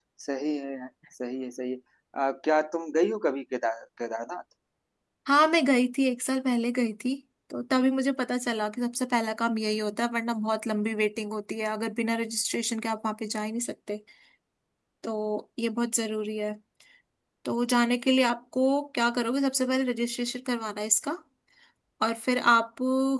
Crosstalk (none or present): none